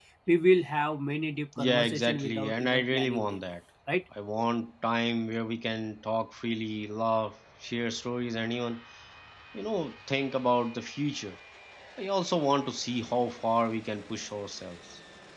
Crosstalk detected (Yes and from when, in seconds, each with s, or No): Yes, from 1.5 s